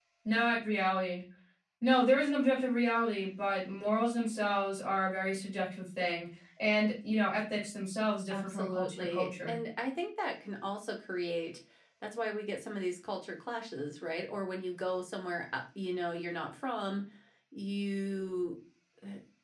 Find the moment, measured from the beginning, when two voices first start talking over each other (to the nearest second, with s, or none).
8 s